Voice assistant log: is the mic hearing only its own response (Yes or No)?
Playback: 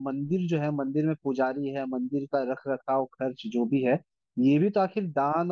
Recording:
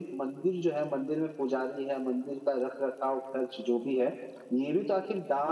Yes